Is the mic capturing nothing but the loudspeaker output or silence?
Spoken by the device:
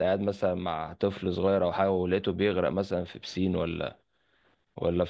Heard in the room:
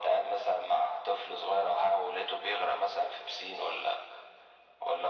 Yes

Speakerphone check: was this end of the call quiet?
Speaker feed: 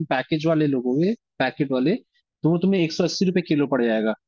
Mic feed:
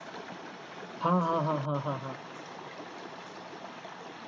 No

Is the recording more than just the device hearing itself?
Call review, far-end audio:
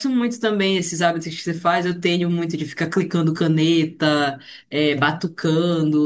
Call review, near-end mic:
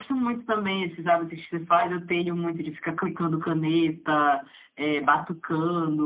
No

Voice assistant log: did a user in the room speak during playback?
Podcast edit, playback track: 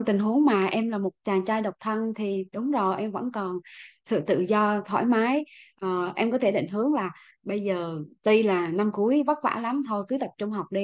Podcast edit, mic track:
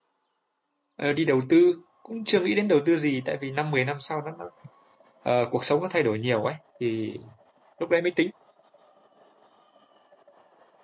Yes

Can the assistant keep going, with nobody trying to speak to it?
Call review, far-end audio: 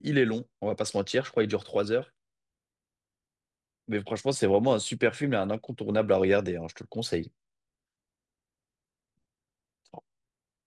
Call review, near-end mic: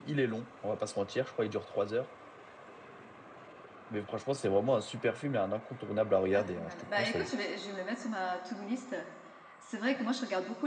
No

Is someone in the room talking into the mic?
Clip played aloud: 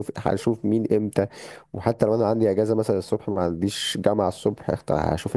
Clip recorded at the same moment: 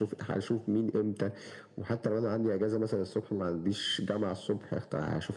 No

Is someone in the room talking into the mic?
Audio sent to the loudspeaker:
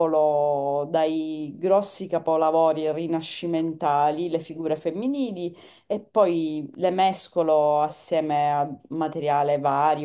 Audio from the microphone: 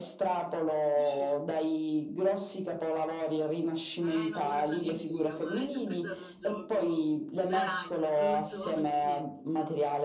Yes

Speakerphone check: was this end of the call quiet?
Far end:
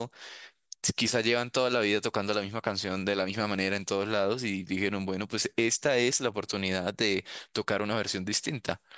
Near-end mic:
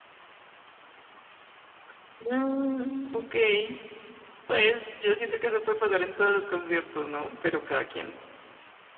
No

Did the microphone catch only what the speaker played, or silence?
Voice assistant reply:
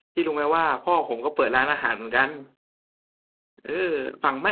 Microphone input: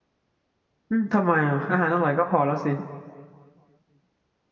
No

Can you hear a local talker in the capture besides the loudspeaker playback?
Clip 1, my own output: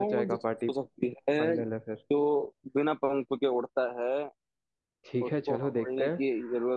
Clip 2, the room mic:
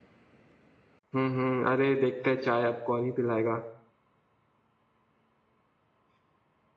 Yes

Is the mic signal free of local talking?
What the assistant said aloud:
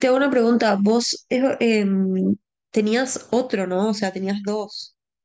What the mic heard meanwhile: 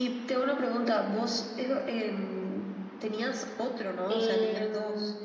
No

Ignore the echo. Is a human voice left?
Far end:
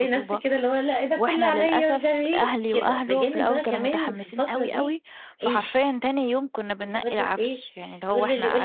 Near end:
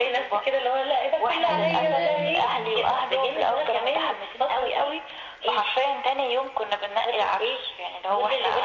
Yes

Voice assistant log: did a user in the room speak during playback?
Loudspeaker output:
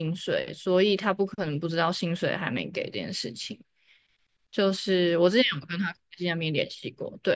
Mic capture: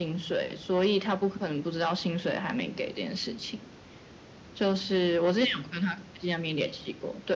No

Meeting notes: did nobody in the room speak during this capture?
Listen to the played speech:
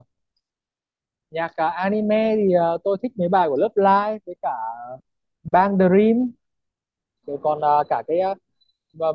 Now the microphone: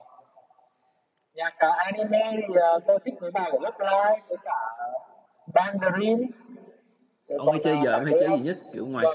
No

